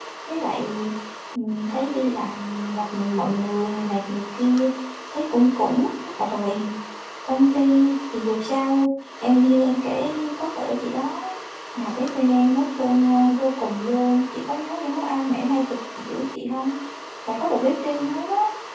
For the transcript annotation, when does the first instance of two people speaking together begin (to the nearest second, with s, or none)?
none